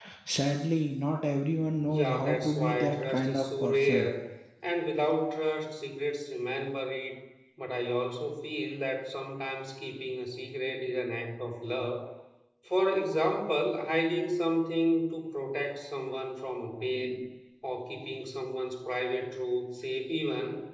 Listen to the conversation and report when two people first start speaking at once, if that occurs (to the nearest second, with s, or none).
2 s